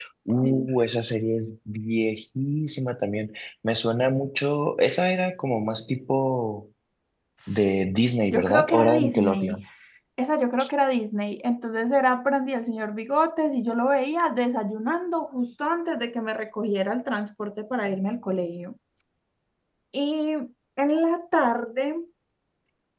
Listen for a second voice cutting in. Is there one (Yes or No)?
Yes